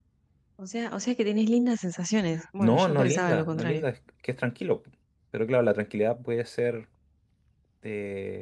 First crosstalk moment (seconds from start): 2.6 s

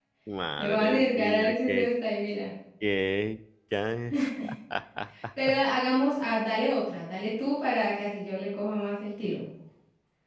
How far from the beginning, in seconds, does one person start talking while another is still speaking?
0.6 s

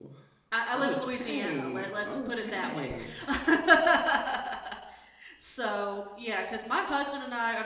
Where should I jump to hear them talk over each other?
0.7 s

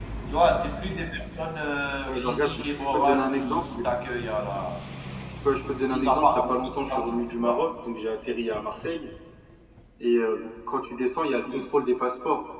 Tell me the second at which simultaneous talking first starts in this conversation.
2.1 s

